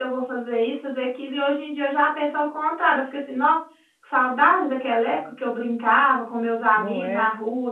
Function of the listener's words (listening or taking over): listening